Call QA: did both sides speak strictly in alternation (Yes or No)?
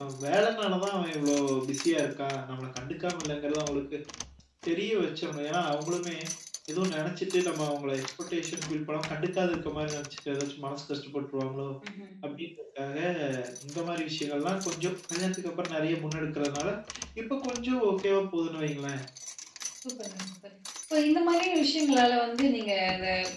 Yes